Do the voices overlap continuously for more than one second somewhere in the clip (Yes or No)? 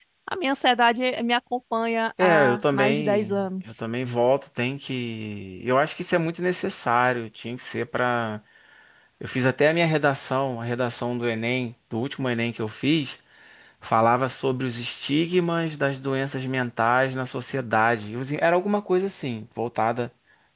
Yes